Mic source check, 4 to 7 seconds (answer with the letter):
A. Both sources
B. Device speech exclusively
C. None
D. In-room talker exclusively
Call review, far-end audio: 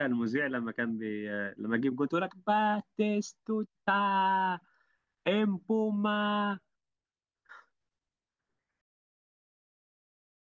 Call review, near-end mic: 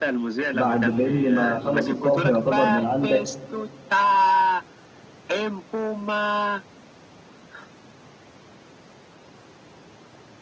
B